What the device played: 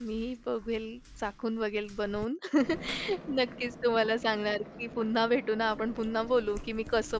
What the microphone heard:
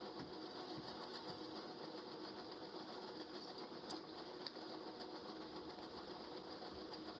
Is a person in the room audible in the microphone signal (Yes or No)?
No